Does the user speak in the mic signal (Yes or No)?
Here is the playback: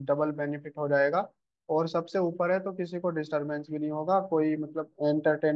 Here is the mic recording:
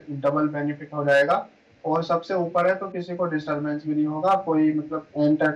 No